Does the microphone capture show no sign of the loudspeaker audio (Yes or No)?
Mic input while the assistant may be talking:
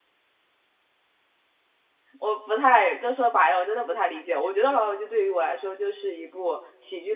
Yes